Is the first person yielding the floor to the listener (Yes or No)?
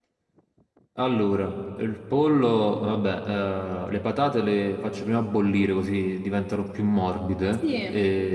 No